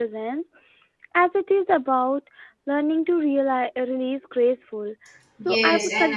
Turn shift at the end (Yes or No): Yes